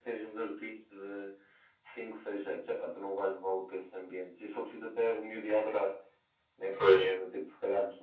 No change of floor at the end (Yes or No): Yes